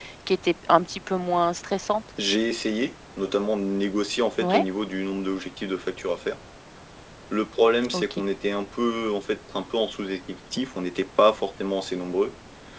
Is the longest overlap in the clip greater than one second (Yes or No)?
No